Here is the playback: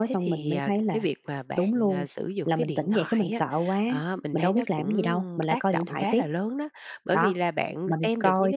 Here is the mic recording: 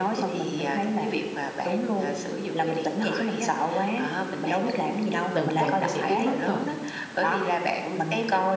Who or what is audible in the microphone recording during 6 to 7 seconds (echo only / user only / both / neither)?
both